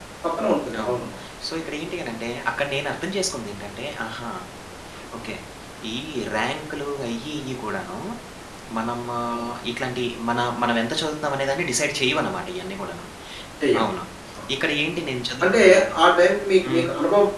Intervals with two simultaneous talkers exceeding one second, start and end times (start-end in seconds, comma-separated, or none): none